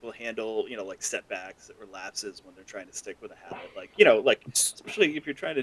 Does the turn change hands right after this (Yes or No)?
No